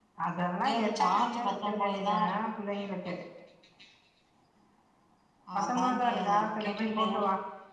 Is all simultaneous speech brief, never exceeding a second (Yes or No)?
No